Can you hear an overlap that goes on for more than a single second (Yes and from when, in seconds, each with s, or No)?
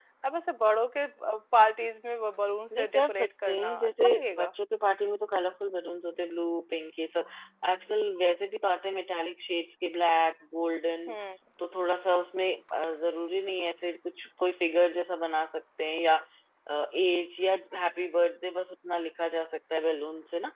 Yes, from 2.7 s